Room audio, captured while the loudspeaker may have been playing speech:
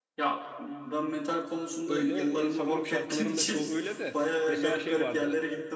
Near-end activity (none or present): present